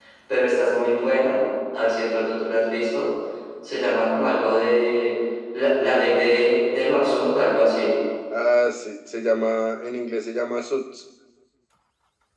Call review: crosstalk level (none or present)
none